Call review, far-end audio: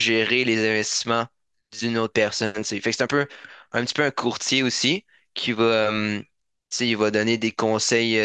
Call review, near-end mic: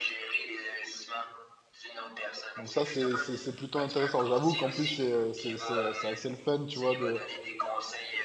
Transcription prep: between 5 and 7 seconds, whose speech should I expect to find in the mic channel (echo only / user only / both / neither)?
both